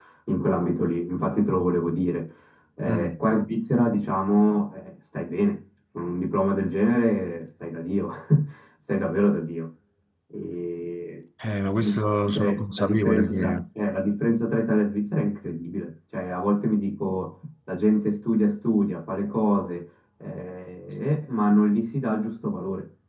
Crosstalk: present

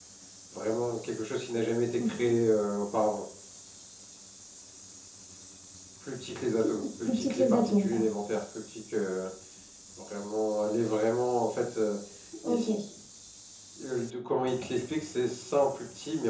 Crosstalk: present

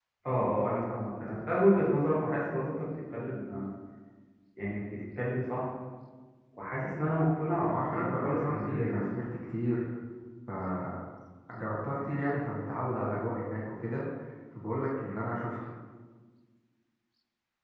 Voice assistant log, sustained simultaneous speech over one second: present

